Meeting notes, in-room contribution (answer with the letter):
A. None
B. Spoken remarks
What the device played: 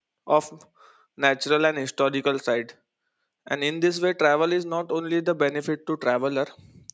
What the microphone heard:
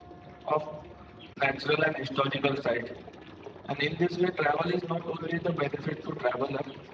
A